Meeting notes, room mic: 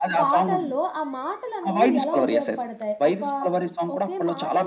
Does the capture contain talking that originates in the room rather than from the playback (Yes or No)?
Yes